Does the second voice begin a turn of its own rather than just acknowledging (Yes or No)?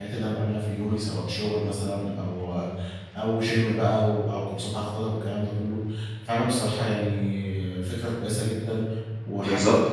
Yes